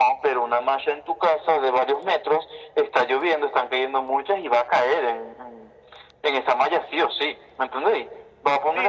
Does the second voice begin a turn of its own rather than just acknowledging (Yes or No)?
Yes